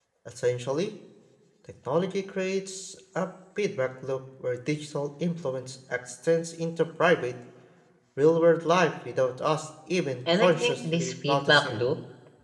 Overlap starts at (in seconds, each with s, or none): 10.3 s